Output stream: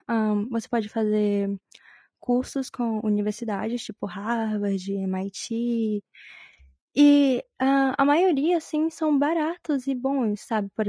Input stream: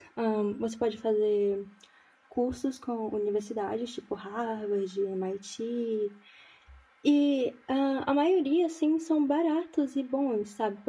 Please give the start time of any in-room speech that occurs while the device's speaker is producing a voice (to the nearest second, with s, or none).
none